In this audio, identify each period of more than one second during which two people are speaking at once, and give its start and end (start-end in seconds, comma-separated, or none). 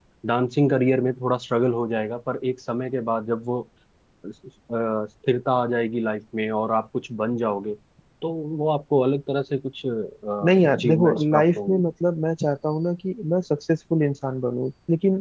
10.4-11.8